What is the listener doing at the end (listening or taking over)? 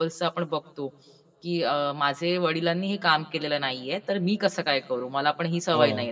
listening